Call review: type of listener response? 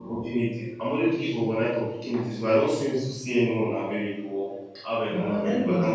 taking over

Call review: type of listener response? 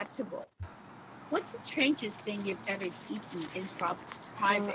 taking over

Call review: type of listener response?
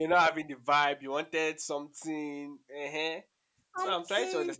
taking over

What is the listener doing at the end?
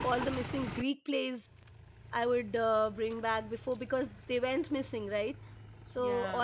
listening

